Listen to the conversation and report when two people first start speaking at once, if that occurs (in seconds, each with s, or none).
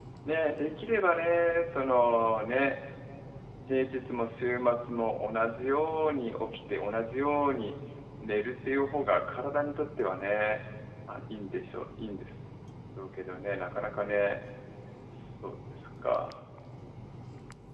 none